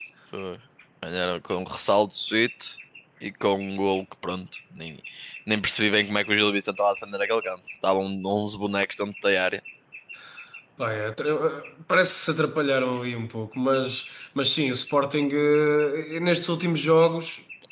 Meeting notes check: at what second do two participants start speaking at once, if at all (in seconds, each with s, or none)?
none